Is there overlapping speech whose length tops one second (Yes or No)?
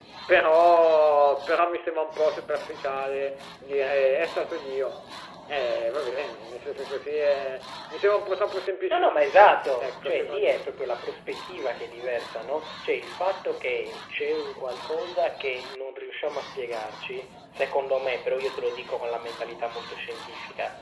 Yes